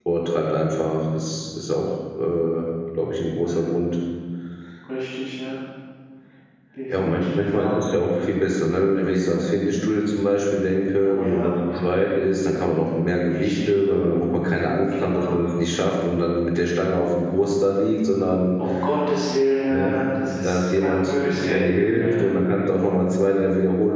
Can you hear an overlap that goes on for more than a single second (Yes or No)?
Yes